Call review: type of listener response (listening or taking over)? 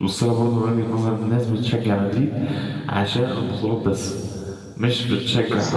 listening